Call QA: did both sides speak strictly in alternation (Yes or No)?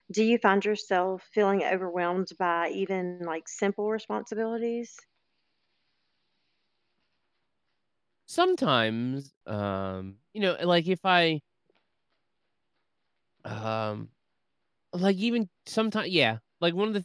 Yes